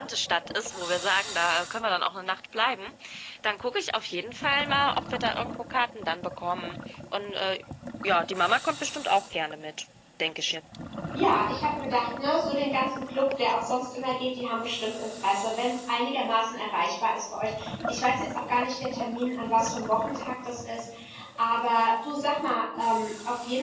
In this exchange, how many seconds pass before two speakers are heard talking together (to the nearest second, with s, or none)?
none